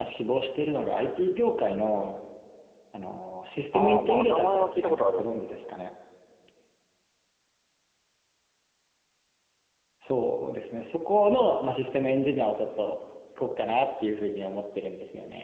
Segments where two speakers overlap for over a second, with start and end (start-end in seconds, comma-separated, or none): 3.7-5.7